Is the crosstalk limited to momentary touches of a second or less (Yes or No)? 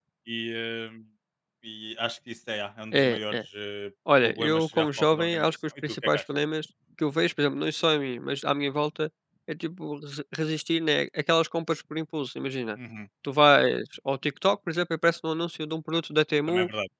No